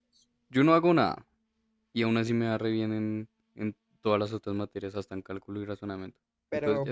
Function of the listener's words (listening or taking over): taking over